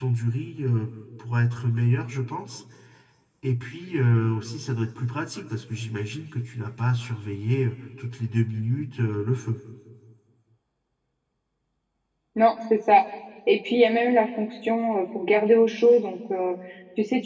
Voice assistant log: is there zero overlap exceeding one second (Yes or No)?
Yes